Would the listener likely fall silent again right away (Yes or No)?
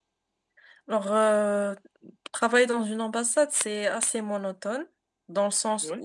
Yes